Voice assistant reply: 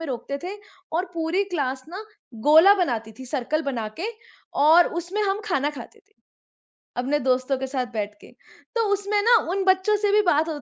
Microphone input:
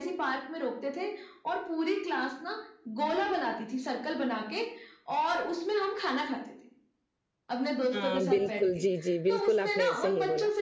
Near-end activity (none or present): present